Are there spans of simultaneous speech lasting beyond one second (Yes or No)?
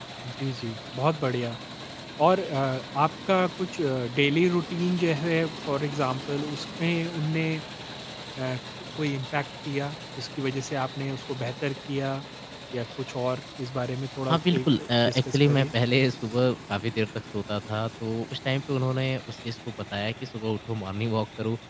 Yes